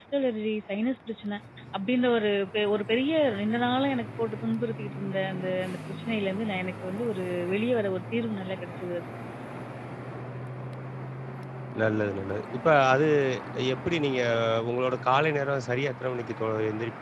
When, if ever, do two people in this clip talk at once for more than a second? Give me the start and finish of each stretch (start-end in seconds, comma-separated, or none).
none